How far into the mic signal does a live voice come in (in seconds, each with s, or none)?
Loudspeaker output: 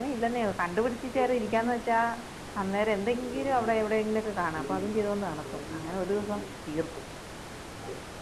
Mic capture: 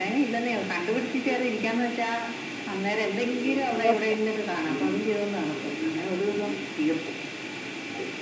3.8 s